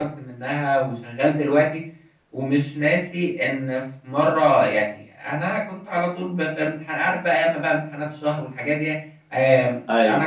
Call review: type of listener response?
listening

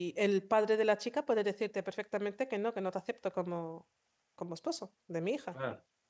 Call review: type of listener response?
taking over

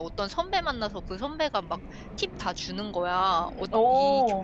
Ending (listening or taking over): listening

